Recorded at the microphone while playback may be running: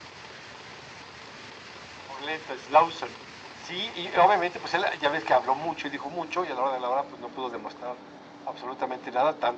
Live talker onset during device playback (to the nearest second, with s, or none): none